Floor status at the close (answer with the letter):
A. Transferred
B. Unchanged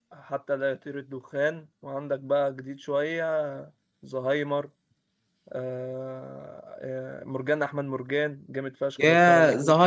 A